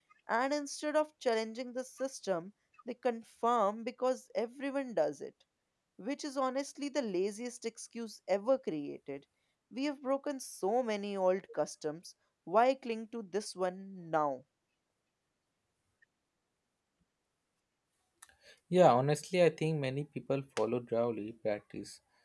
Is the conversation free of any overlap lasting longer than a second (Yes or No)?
Yes